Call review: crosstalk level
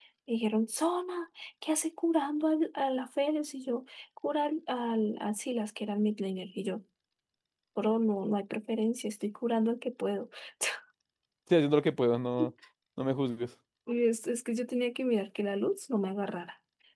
none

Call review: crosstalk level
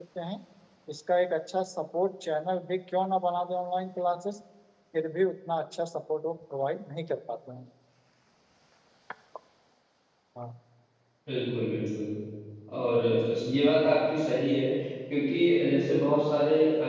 none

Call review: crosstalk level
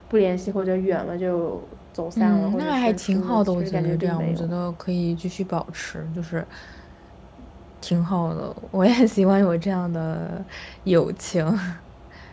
present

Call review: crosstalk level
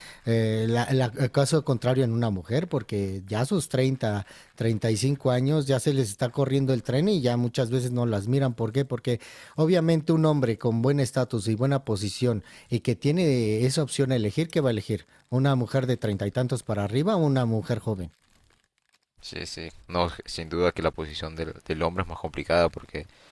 none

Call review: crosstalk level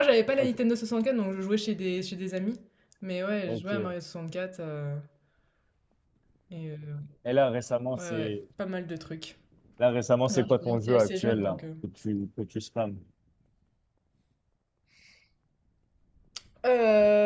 present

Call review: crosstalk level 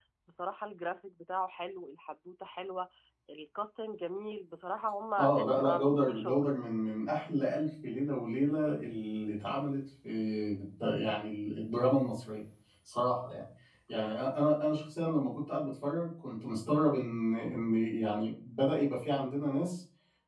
present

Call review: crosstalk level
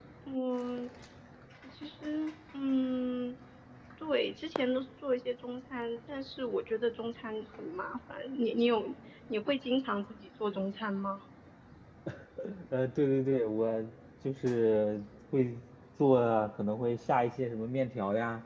none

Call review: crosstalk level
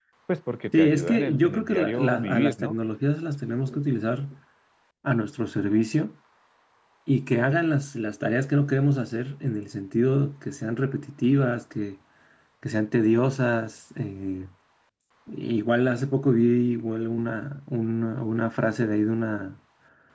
present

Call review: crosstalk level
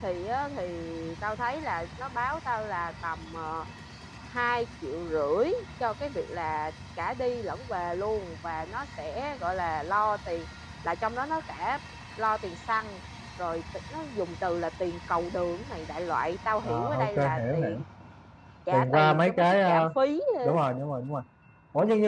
present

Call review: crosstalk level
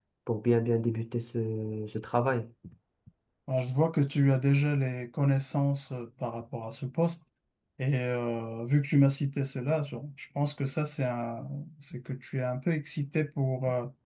none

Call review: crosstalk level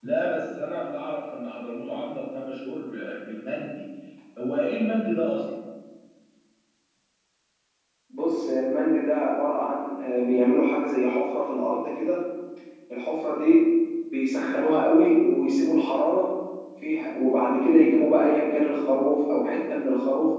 none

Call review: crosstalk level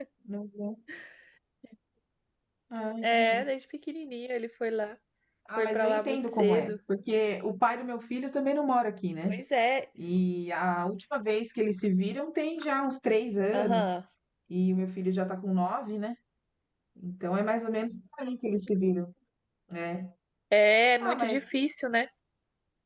present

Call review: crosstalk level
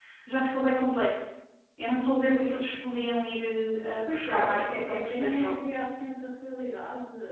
present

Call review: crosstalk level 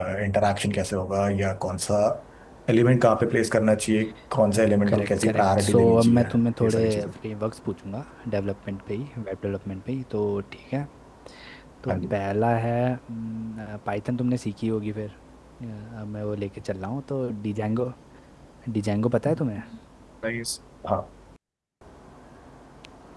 present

